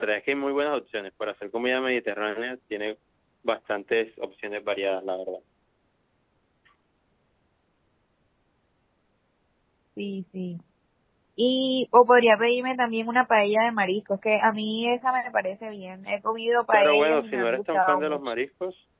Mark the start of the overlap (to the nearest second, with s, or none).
17 s